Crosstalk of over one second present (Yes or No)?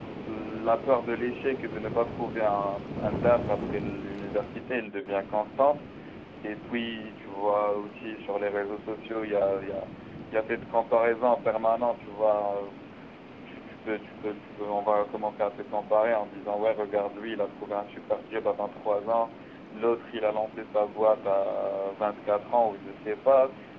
No